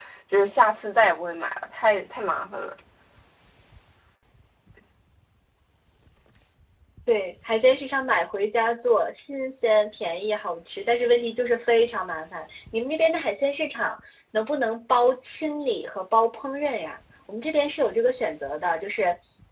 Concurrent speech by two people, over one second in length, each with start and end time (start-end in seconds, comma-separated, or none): none